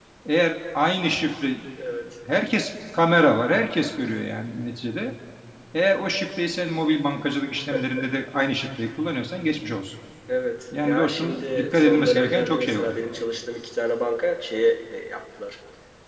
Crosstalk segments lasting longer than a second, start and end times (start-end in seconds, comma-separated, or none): 10.8-12.9